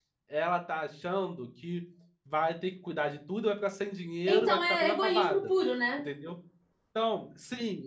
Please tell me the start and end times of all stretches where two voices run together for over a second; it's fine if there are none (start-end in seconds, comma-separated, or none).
4.3-5.5